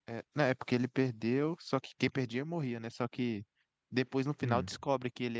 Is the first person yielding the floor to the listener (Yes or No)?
No